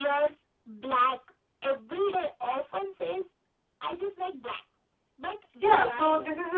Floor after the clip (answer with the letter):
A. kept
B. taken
B